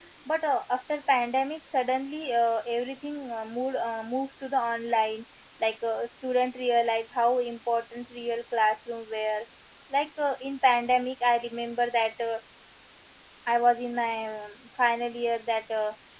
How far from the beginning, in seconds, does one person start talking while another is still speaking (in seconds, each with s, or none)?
none